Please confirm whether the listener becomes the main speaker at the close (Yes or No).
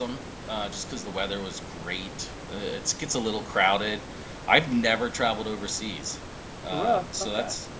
No